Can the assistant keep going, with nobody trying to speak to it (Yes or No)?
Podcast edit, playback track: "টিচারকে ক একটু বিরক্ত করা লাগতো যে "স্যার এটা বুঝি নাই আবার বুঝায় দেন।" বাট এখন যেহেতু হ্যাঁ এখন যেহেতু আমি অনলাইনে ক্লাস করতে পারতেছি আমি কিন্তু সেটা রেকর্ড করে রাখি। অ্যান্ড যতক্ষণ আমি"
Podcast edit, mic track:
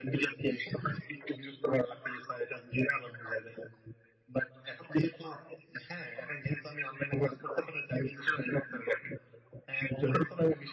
Yes